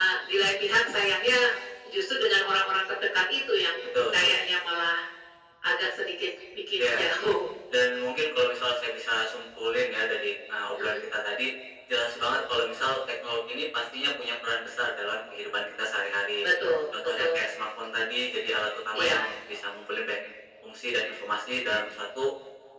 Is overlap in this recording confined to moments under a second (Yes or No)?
Yes